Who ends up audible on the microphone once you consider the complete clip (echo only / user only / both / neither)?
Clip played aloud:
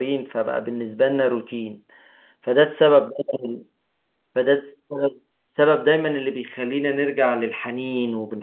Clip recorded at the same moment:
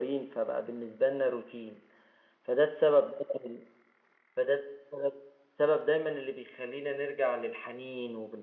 echo only